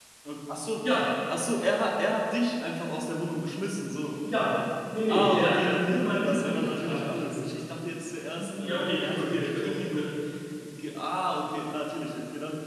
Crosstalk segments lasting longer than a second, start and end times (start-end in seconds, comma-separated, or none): 5.1-7.4, 8.3-10.1